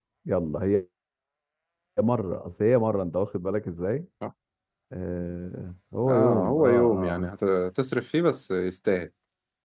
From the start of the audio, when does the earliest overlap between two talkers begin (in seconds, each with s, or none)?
6.0 s